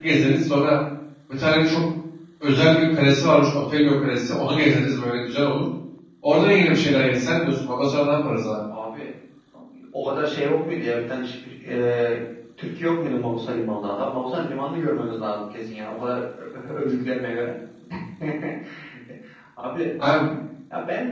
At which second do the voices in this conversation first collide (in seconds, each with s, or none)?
none